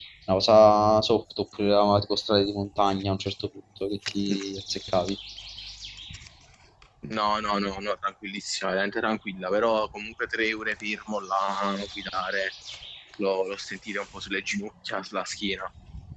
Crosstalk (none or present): none